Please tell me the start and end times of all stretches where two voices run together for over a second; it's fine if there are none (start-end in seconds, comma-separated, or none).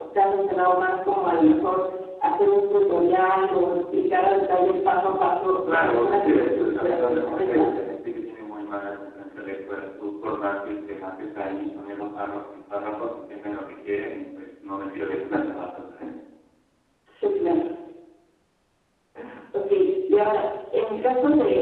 5.7-7.6